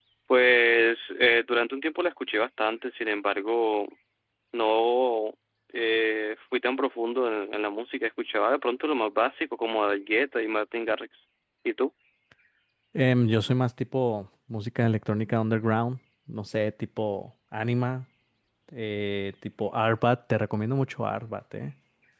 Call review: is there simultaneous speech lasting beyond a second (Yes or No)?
No